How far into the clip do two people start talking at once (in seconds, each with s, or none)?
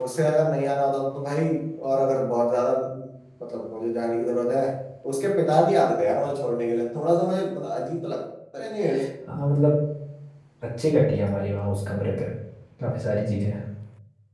none